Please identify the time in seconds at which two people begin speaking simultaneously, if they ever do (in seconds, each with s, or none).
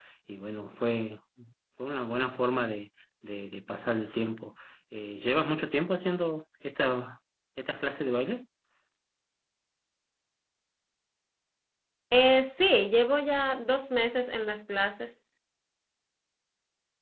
none